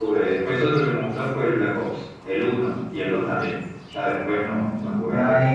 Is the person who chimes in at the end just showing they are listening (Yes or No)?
No